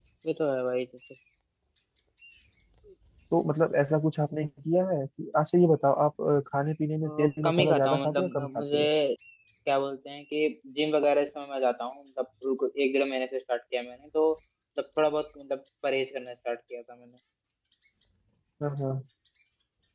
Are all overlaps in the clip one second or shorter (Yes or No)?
No